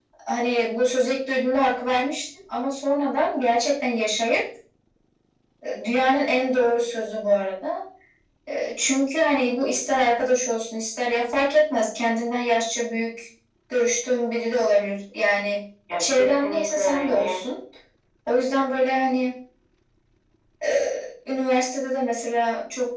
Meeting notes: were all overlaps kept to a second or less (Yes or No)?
No